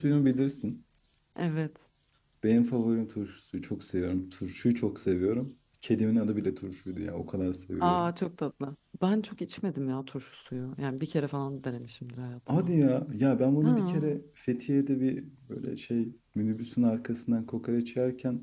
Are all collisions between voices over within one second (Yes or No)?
Yes